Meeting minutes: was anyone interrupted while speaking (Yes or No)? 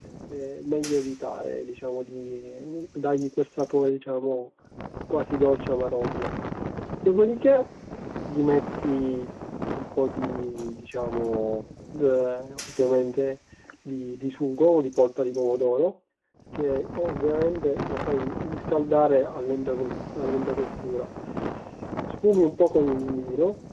No